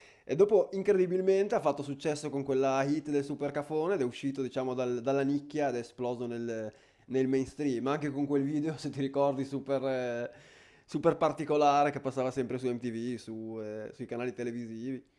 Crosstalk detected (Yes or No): No